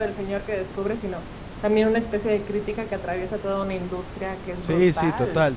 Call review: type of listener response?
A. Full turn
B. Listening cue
A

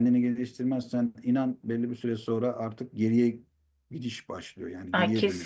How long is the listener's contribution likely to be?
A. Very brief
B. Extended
B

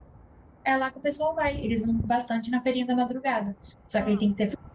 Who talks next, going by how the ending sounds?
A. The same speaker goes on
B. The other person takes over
A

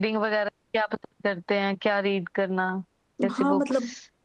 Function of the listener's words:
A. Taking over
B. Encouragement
A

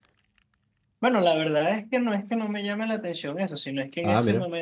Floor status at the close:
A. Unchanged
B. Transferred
A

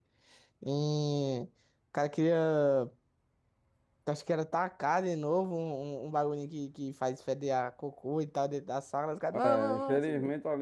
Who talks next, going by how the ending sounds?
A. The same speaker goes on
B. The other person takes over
B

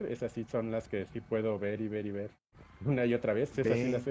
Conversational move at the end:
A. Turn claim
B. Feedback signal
B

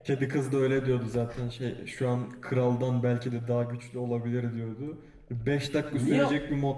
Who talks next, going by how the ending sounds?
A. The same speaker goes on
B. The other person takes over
A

